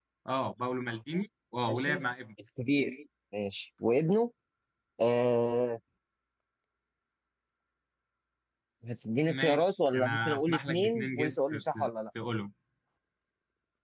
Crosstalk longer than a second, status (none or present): present